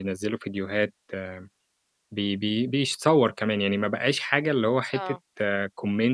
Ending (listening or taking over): listening